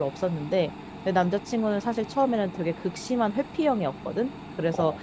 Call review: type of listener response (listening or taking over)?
listening